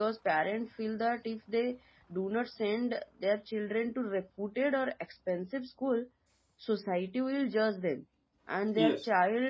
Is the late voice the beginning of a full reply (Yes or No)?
No